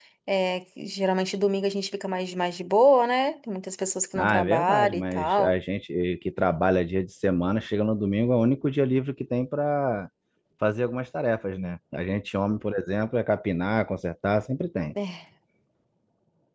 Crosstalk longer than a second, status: present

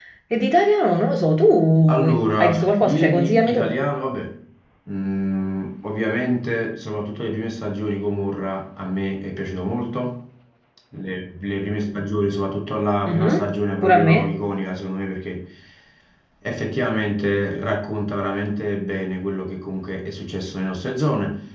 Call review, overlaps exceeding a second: present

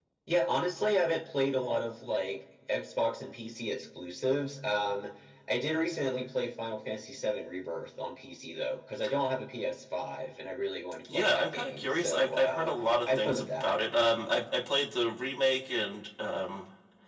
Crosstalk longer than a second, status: present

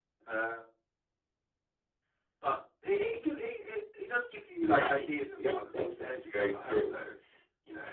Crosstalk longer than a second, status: present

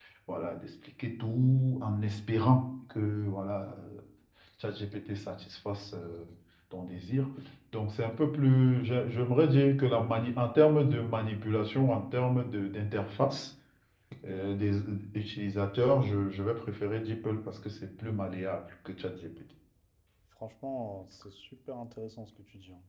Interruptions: none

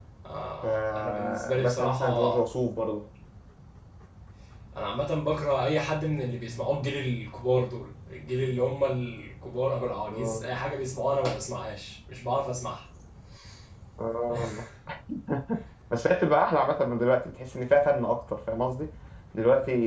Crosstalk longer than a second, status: present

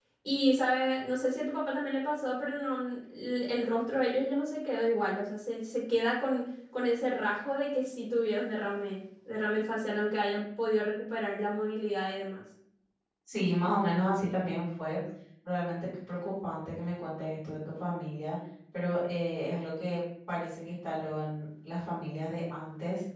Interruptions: none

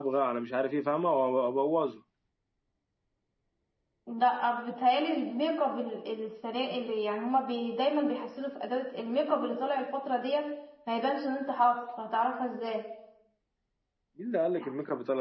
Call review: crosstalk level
none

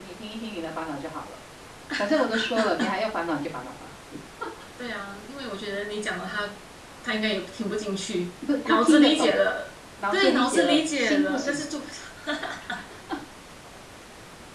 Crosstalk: present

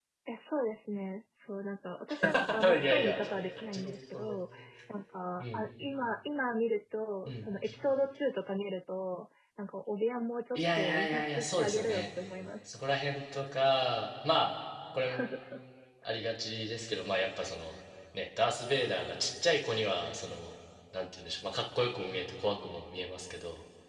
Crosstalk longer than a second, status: present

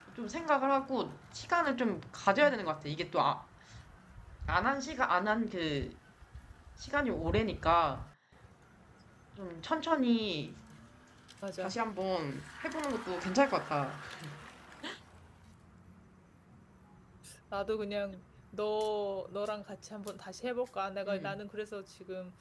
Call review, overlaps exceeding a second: none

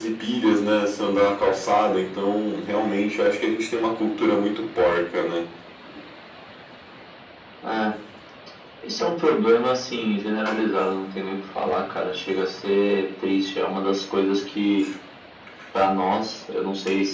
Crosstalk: none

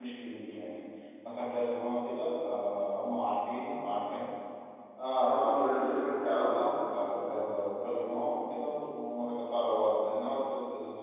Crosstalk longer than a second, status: present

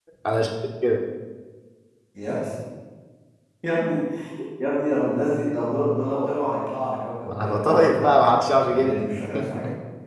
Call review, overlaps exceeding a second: present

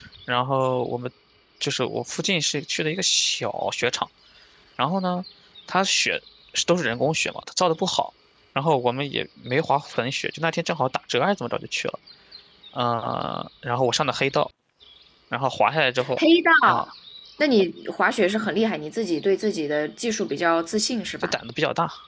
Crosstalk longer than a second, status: none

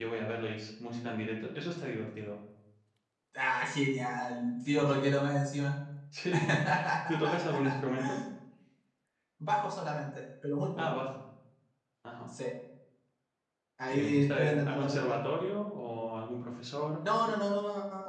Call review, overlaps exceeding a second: present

